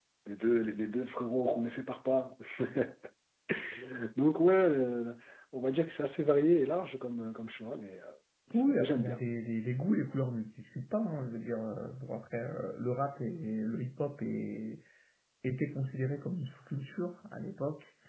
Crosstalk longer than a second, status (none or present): none